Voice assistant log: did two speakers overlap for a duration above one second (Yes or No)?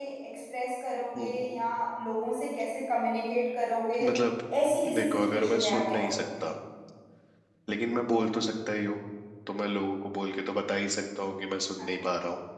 Yes